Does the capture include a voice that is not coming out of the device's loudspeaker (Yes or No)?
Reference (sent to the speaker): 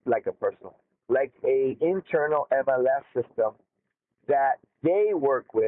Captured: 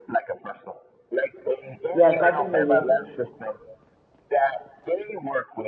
Yes